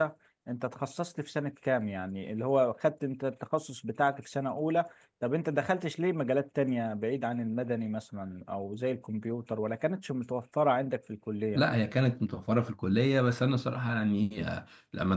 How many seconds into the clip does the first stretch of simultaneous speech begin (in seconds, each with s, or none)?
none